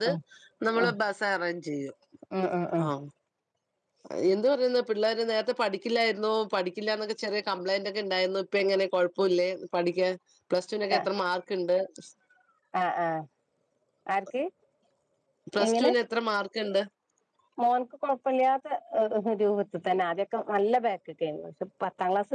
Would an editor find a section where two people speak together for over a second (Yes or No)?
No